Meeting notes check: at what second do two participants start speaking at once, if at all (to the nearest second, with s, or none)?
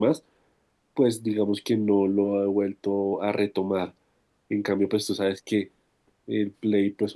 none